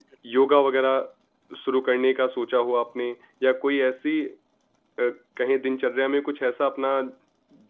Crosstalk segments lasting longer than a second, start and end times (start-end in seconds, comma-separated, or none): none